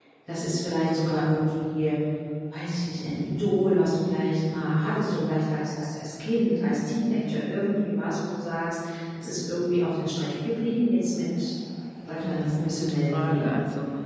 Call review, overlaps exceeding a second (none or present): present